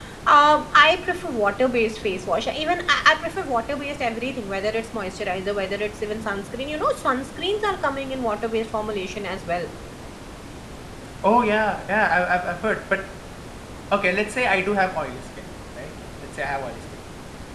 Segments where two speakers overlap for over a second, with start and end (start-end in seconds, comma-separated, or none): none